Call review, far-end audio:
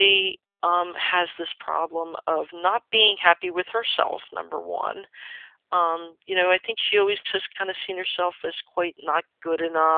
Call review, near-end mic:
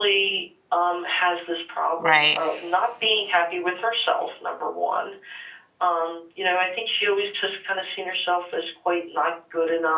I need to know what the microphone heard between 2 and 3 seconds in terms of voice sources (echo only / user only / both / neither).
both